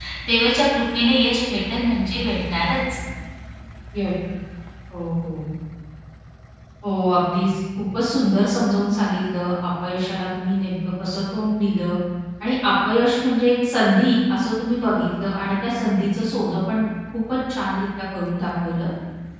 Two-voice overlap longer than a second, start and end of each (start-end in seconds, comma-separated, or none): none